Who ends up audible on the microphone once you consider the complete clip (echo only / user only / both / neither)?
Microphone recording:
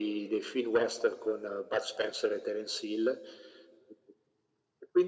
echo only